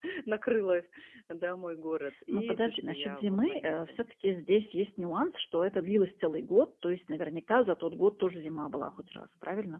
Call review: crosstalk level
present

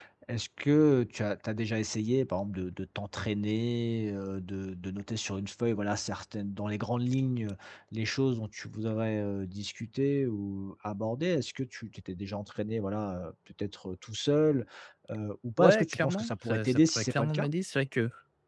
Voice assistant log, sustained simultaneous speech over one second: present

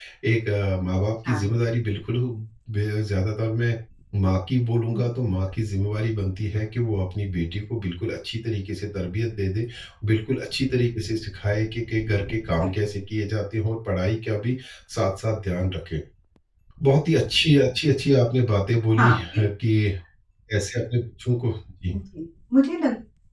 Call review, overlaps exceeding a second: none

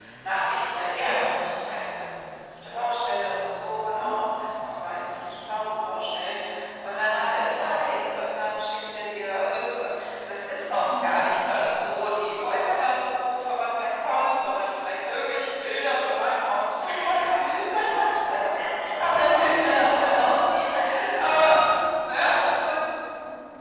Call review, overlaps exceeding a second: present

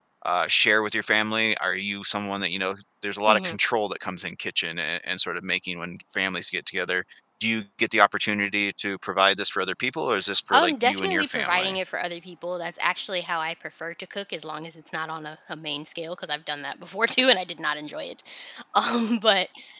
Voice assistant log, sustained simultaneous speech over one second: present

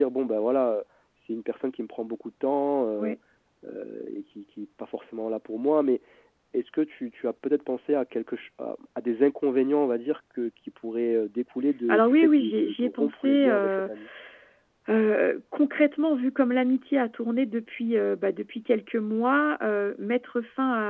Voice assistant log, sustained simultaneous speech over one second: present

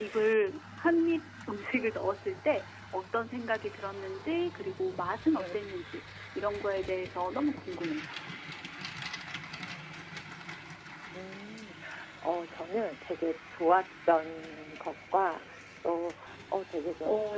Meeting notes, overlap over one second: none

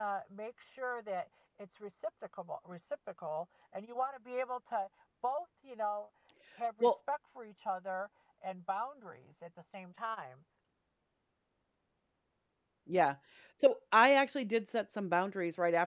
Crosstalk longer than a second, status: none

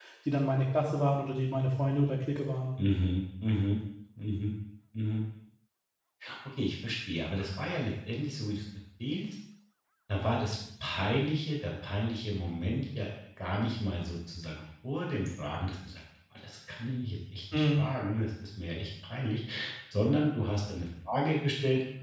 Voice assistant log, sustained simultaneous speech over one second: none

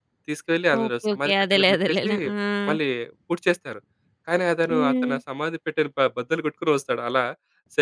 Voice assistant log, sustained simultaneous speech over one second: present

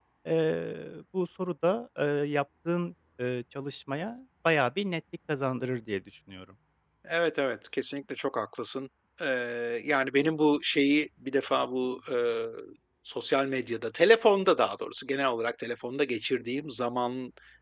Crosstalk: none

